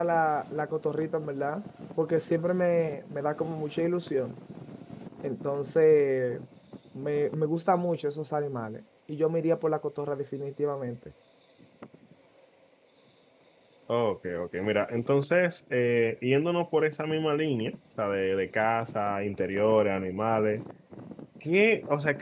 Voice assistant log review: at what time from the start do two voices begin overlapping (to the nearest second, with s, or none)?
none